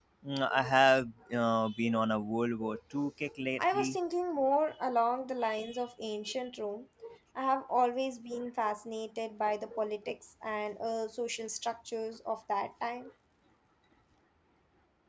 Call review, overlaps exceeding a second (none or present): none